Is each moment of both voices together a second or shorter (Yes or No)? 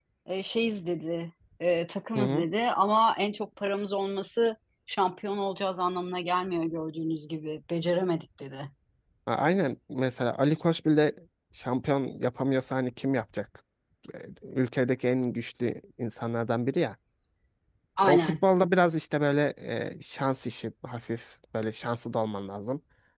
Yes